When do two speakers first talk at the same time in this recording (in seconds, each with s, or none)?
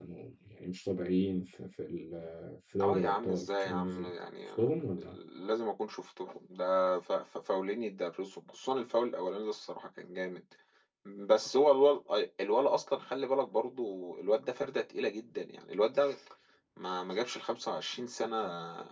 2.8 s